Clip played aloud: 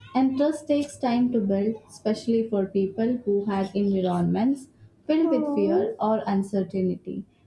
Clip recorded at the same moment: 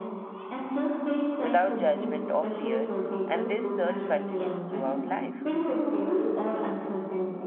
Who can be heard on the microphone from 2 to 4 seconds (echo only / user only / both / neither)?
both